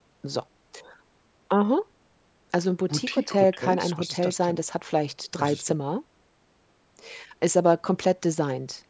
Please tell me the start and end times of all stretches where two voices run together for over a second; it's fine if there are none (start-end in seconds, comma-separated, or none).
2.9-4.6